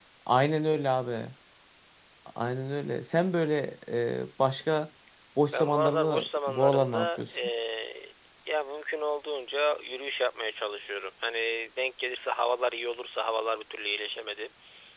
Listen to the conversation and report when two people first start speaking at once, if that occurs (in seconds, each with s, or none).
5.5 s